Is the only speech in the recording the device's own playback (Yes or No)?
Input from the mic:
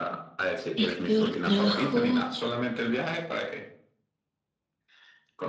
No